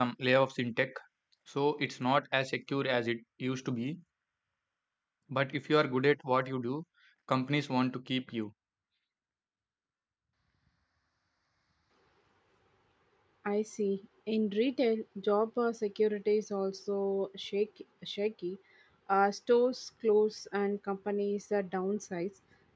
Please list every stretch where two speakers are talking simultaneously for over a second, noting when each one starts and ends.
none

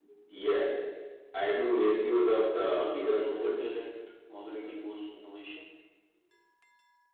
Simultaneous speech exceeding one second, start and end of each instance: 2.5-3.8

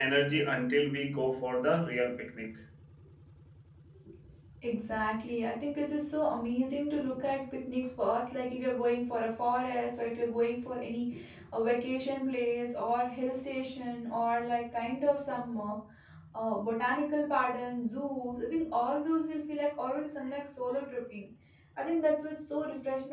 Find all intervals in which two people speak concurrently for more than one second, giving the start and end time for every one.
none

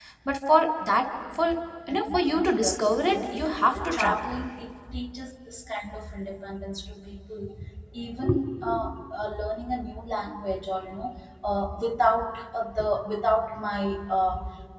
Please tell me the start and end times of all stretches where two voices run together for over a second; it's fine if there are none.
1.9-3.4

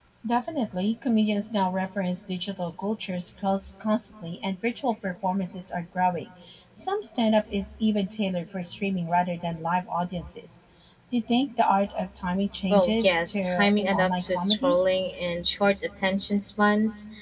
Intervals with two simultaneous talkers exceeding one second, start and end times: 12.7-14.8

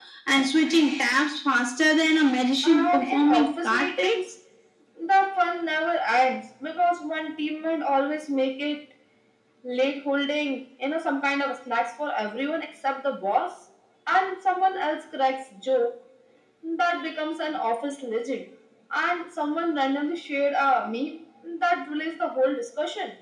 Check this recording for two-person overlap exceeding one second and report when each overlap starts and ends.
2.6-4.2

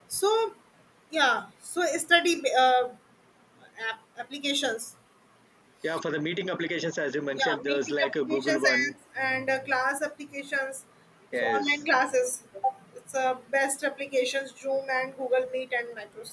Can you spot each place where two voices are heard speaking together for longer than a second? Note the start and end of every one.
7.4-8.9

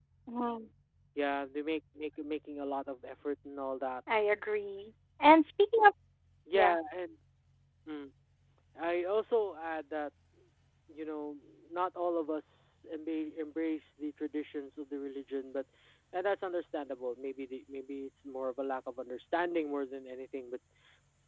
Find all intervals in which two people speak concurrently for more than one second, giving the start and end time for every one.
none

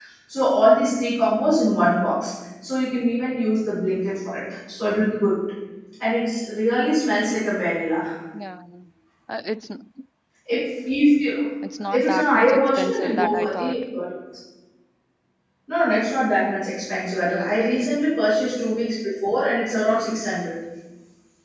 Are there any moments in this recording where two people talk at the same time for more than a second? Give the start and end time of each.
11.9-13.8

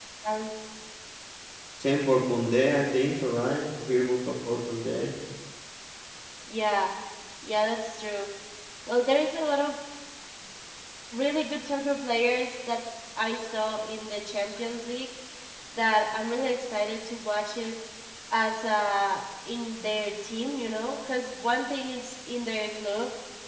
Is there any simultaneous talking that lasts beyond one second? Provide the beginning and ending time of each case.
none

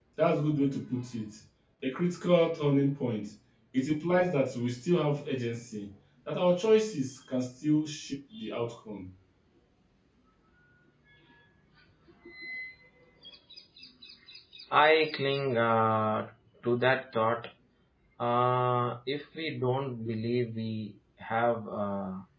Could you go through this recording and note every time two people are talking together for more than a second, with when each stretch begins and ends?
none

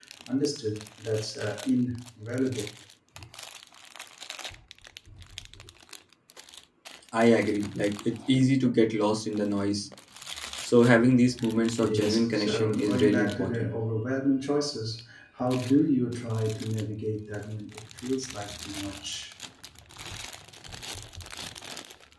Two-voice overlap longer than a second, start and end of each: 11.8-13.7

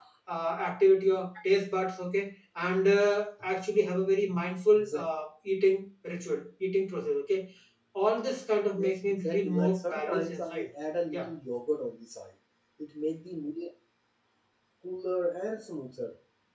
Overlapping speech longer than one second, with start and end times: 8.8-10.7

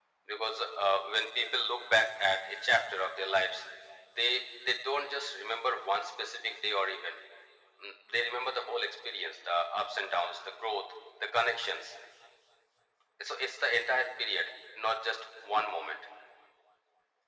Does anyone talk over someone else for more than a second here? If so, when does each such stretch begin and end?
none

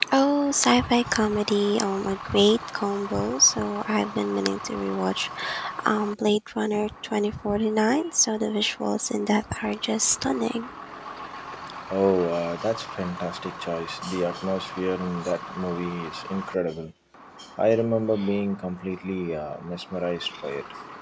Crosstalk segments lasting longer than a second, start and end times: none

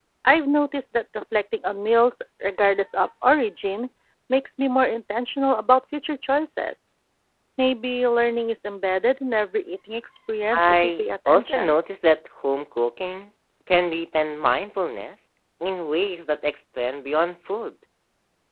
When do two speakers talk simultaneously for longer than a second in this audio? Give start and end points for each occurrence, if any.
10.6-11.8

